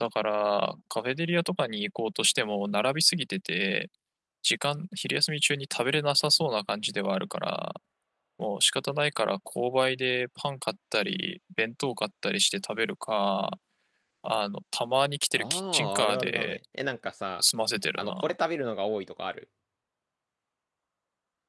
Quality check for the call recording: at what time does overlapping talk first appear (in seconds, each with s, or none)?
15.4 s